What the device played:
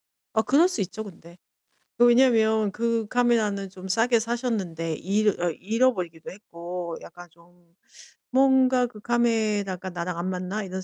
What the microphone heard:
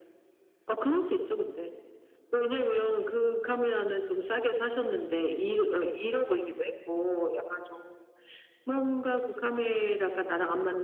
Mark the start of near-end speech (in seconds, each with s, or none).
none